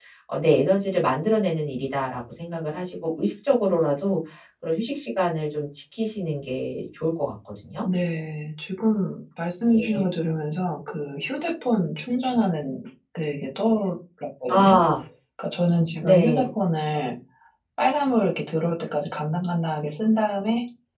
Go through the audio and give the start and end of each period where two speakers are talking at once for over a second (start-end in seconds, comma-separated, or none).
none